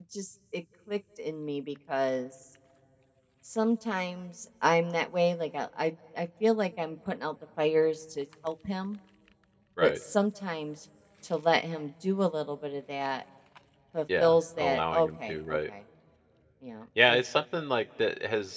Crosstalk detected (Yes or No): Yes